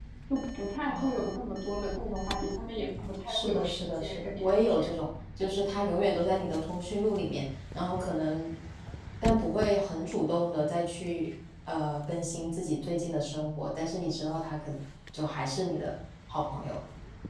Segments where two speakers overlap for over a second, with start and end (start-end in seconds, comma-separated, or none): 3.2-4.9